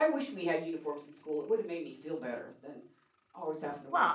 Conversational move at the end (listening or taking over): taking over